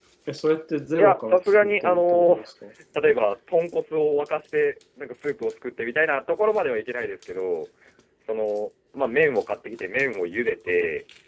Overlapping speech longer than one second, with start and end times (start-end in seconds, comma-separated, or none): 1.0-2.4